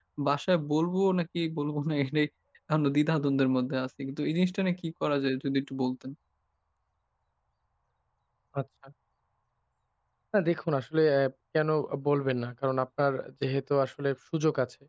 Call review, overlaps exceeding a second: none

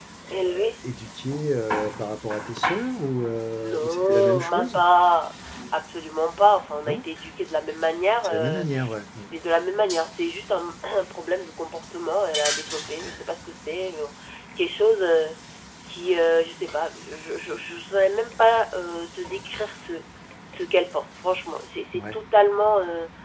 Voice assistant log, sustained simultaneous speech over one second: present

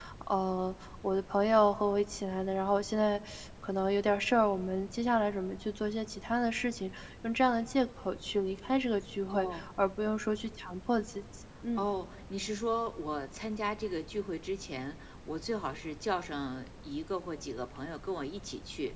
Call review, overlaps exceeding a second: none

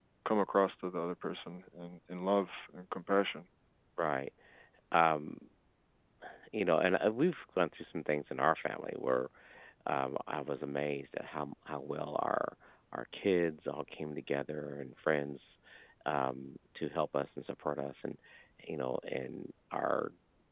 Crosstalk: none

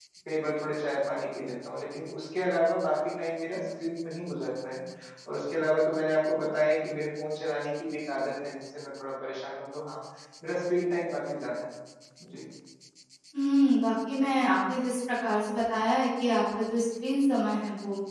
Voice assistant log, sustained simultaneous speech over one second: none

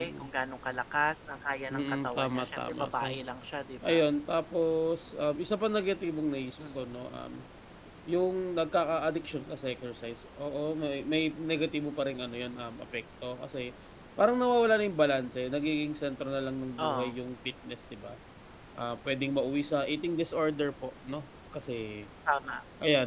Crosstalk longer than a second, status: present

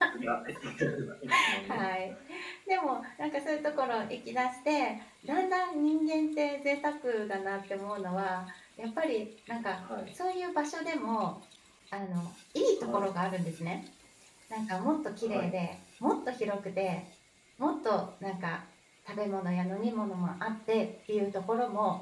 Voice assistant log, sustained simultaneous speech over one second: none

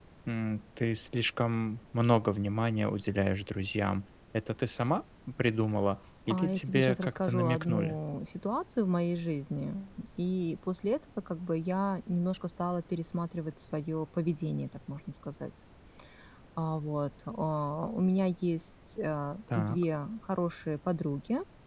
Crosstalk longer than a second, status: present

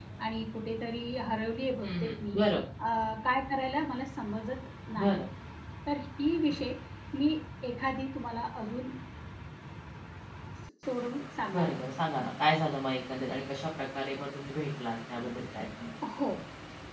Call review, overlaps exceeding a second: none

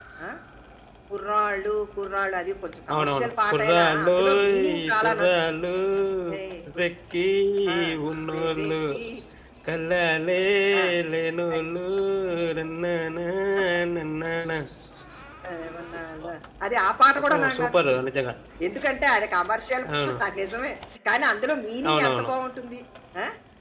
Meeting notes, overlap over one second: present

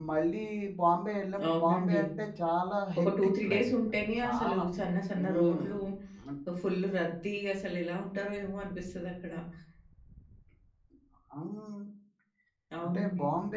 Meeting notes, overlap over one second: present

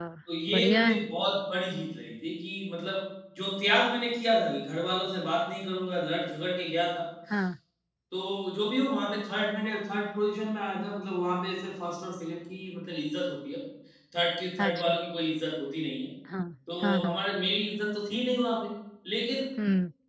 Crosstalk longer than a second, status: none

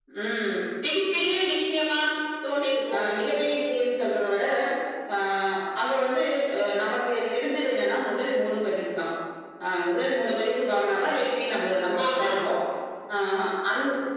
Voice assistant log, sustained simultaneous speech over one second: none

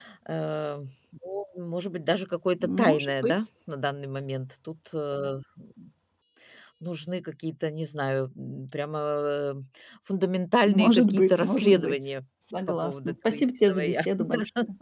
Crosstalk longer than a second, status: present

